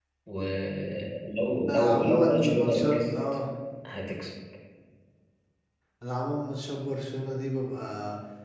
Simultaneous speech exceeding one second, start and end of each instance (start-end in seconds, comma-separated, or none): 1.7-3.1